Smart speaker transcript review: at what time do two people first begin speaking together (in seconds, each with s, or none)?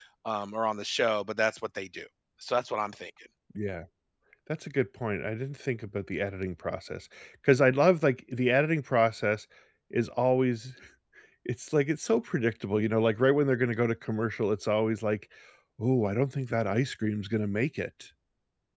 none